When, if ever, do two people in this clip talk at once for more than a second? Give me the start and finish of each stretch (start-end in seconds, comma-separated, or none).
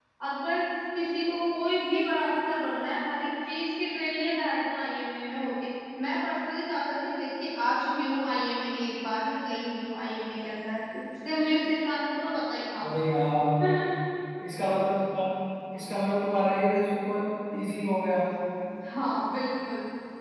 none